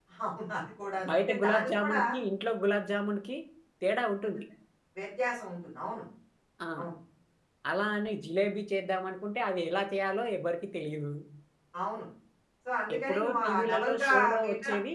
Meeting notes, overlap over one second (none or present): present